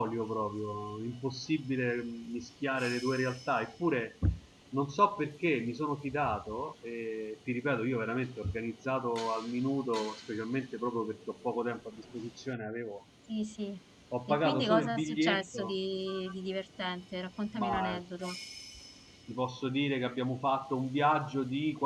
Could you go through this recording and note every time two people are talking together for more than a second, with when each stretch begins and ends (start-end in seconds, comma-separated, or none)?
14.3-15.7